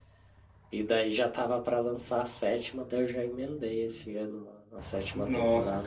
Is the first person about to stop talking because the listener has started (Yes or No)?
Yes